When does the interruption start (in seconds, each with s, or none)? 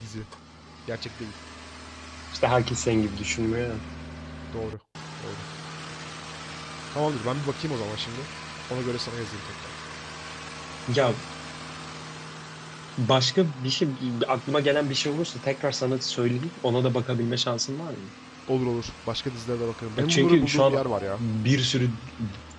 20.0 s